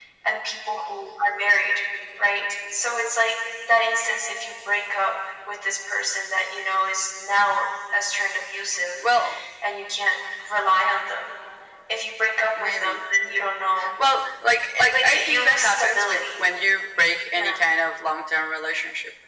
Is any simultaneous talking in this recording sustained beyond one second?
Yes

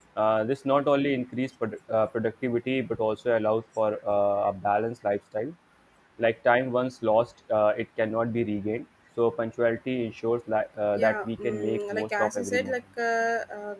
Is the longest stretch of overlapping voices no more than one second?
No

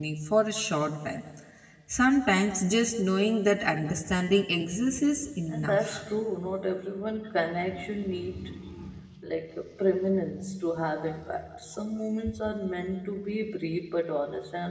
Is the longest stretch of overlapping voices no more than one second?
Yes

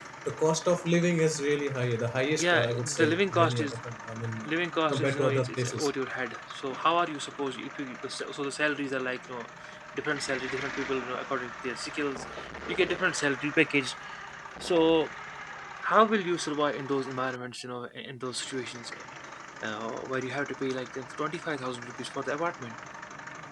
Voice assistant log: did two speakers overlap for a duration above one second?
Yes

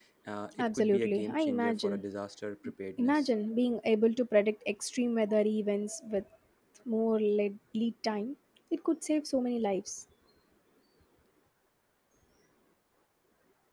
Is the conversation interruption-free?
No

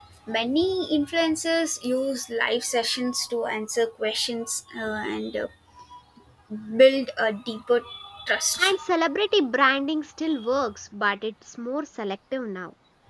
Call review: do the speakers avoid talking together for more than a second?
Yes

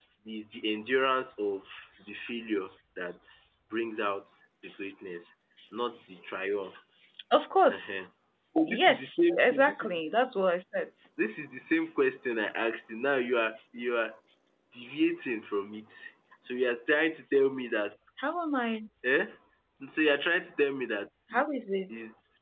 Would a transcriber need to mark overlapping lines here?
Yes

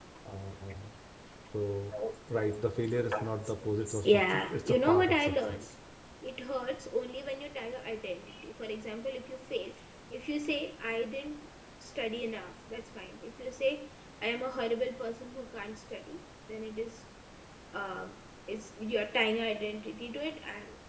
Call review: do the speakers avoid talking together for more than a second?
No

